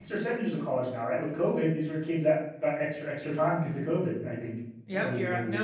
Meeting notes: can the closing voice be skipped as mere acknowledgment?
No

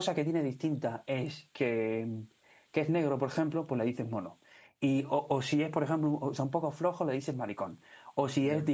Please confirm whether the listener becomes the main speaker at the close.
No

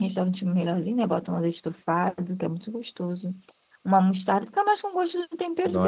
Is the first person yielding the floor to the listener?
Yes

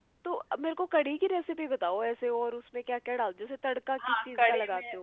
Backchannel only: No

